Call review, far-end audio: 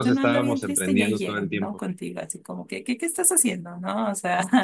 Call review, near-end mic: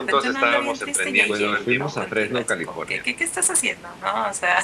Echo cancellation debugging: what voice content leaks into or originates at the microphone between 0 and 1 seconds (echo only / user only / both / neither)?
echo only